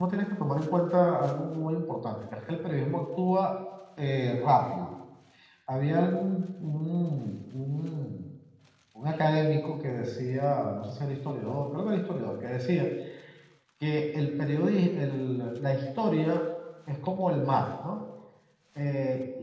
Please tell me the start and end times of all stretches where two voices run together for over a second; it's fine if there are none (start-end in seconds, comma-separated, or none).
none